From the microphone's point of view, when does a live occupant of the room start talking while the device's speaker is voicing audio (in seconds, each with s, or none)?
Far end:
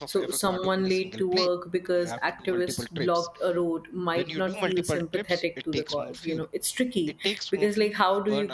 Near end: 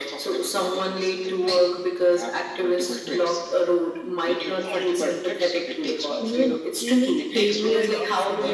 6.2 s